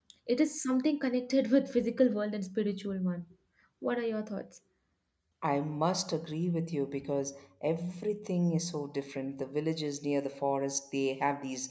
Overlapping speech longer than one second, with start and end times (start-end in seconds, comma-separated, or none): none